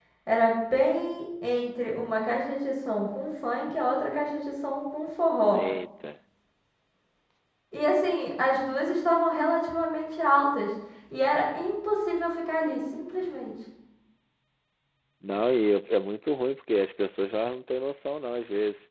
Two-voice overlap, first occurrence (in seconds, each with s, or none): none